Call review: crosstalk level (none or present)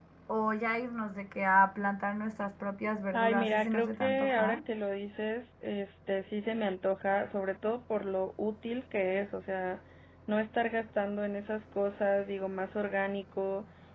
present